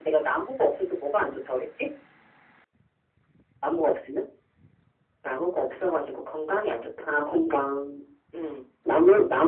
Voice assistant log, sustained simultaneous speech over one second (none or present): none